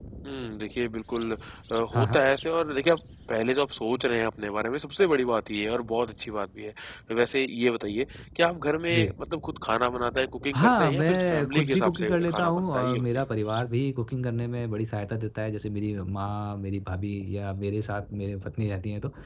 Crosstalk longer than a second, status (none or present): present